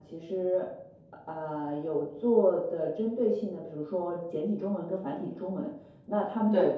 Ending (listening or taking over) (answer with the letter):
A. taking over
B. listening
B